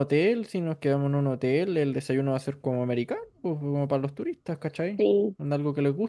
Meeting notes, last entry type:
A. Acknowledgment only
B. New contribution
A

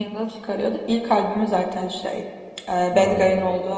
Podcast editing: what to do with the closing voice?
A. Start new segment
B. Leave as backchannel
B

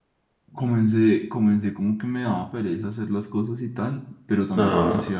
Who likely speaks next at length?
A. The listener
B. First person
B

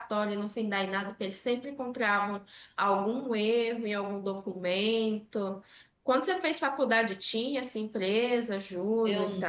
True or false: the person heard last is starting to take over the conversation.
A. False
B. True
B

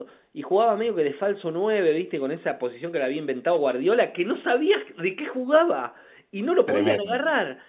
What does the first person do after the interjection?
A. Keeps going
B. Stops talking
A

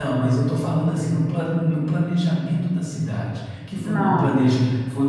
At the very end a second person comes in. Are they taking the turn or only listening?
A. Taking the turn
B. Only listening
B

